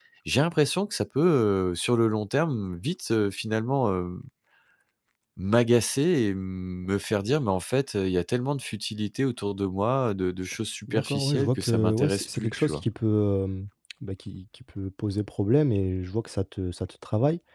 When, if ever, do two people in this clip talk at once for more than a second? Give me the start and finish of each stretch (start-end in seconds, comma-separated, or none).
10.9-12.8